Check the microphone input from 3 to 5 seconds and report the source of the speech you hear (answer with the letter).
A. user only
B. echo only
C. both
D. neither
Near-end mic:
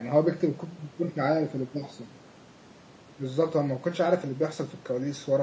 A